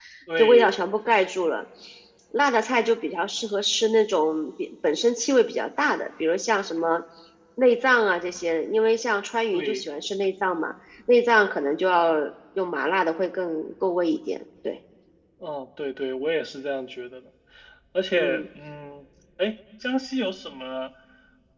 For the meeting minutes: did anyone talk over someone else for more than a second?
No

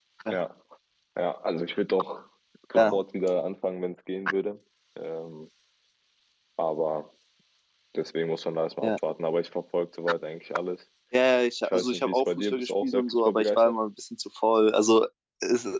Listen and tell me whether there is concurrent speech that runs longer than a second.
Yes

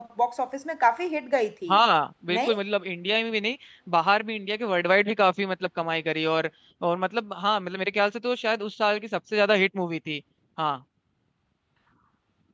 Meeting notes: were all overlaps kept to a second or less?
Yes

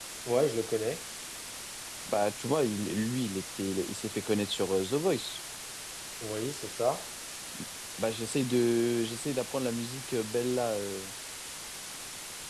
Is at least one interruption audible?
No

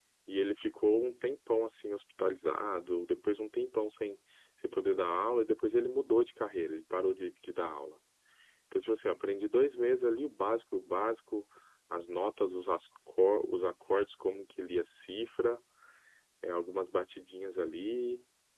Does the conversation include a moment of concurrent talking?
No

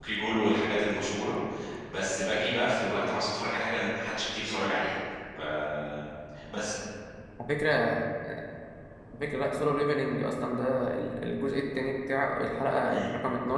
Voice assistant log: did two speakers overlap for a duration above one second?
No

